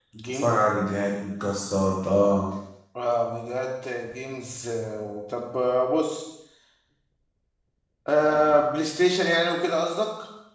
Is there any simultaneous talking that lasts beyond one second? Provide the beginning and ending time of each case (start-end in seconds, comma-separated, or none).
none